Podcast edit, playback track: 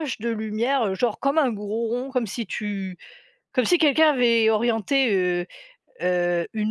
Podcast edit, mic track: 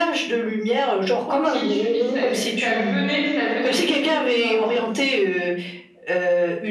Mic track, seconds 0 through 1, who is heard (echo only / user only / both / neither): echo only